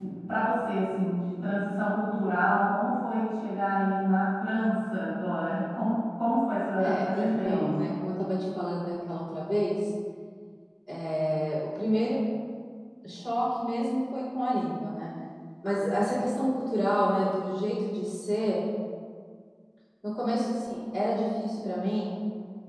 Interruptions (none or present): present